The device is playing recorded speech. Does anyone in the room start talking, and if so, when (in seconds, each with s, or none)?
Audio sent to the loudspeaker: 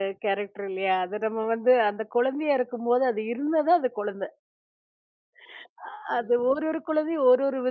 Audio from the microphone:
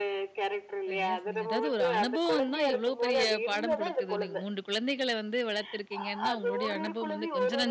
0.9 s